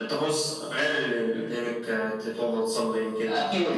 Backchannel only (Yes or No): No